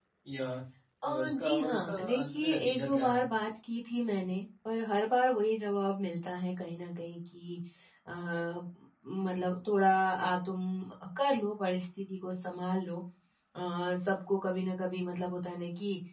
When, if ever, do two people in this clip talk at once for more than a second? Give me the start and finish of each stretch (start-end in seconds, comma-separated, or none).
1.0-3.3